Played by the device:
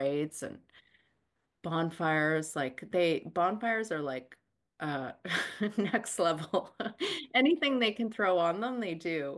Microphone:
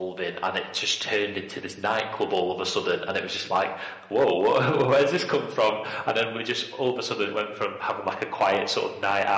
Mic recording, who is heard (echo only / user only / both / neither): user only